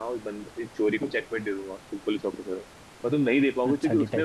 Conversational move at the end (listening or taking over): listening